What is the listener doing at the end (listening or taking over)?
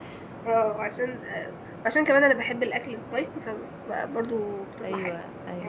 taking over